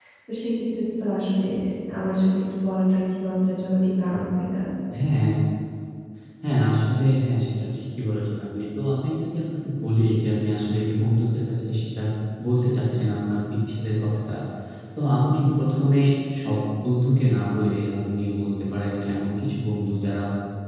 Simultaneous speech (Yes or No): No